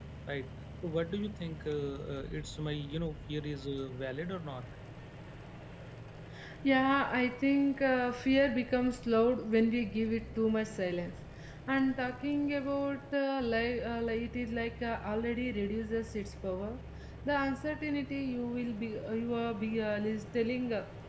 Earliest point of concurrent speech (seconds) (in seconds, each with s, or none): none